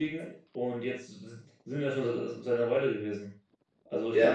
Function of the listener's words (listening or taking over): listening